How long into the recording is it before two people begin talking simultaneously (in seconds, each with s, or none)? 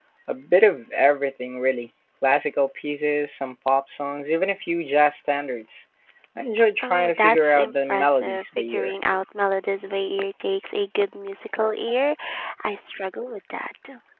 6.8 s